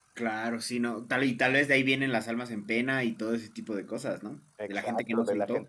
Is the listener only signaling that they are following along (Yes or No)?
No